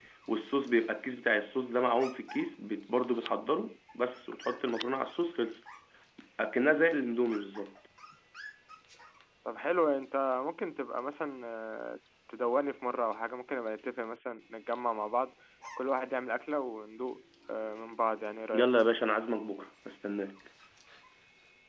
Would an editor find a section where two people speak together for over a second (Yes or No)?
No